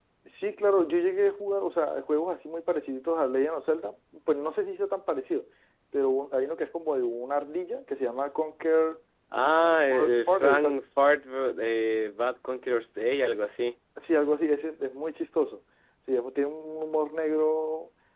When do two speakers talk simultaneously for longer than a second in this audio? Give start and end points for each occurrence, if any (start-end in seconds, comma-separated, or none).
9.4-10.8